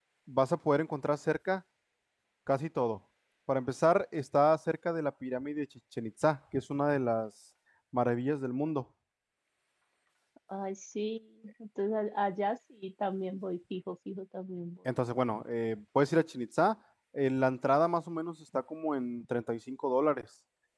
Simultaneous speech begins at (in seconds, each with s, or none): none